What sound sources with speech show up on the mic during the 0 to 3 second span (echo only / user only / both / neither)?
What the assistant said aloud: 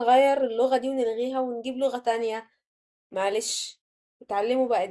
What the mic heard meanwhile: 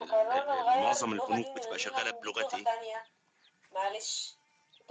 both